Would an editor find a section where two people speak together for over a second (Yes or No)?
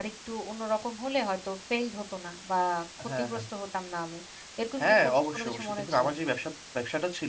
Yes